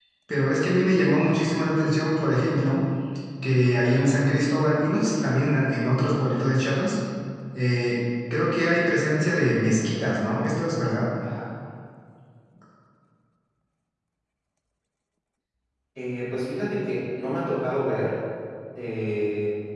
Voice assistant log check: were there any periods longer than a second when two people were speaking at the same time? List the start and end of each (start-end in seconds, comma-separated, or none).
none